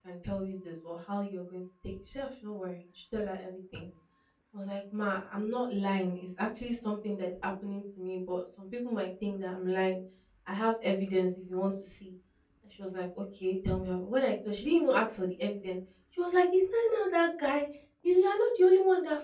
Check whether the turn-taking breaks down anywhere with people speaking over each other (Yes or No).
No